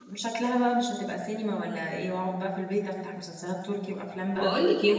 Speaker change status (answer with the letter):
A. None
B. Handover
B